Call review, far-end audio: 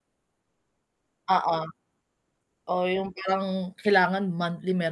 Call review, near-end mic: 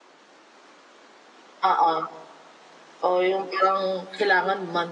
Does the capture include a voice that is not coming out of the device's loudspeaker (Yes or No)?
No